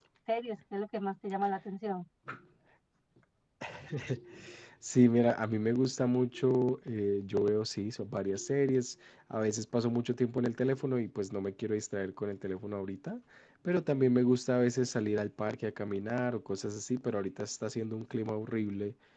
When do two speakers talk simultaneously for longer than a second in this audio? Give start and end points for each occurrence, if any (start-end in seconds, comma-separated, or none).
none